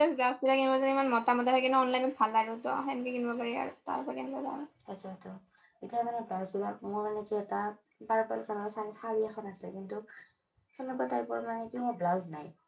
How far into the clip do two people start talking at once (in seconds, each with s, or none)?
none